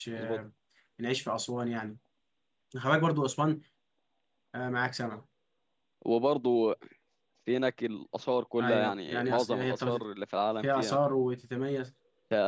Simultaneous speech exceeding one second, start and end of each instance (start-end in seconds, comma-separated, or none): 8.6-10.0